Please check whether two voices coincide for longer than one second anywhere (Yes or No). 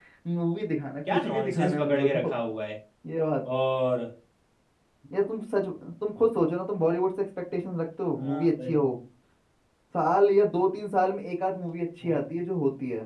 Yes